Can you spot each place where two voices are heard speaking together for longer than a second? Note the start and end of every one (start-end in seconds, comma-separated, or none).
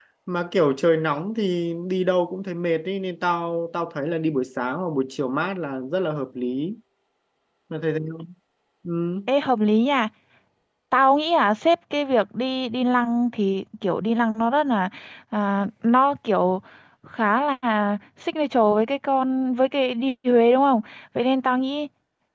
none